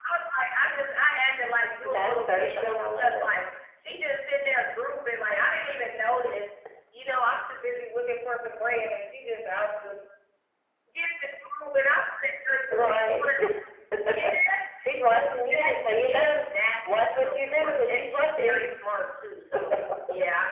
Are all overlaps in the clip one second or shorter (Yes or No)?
No